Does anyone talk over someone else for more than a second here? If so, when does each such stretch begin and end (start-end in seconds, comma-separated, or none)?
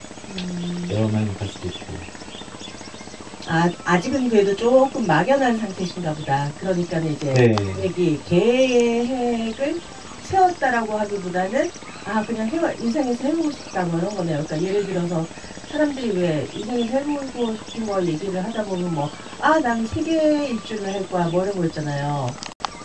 none